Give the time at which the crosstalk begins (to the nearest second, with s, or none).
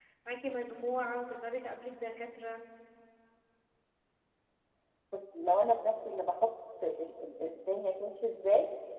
none